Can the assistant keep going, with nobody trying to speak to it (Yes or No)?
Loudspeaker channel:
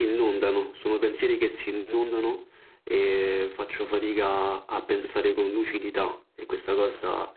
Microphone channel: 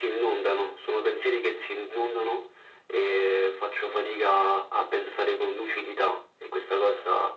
Yes